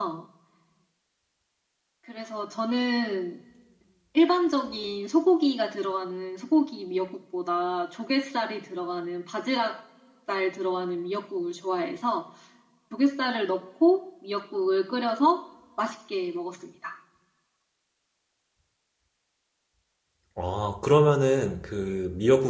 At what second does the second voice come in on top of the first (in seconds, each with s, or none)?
none